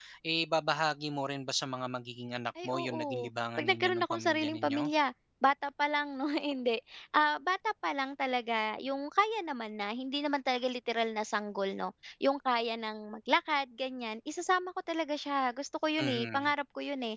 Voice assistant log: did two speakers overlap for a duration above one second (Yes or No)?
Yes